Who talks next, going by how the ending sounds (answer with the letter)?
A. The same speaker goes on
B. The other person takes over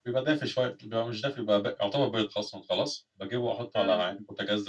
A